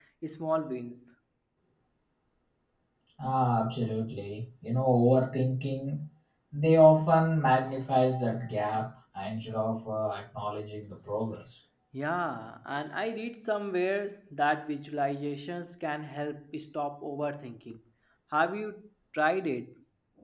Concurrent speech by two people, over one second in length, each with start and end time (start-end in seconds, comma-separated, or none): none